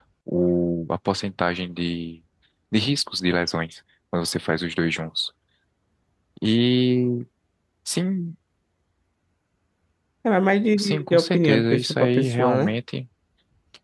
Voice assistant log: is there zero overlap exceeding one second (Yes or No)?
No